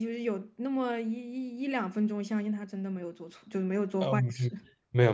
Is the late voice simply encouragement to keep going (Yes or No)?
No